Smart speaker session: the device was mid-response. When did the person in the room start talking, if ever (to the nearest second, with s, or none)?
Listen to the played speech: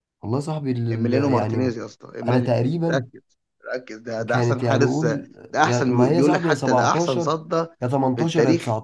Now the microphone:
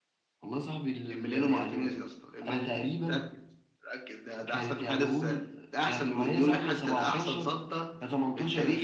none